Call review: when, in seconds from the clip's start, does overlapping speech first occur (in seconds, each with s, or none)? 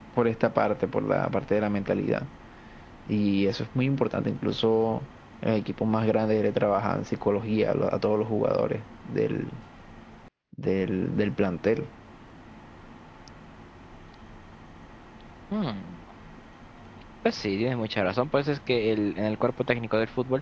none